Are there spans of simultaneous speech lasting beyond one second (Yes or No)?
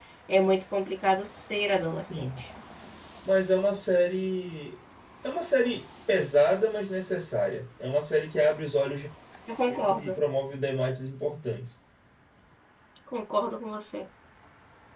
No